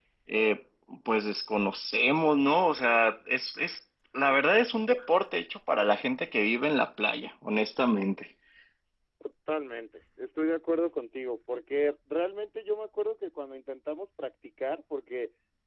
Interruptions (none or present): none